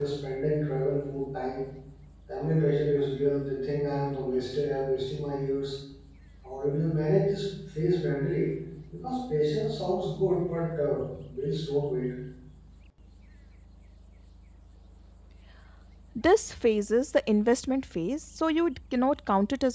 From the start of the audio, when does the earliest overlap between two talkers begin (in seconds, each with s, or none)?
none